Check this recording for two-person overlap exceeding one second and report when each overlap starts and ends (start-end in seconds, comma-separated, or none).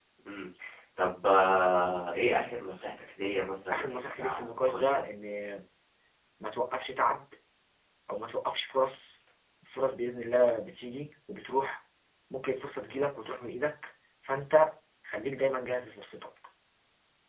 3.7-5.0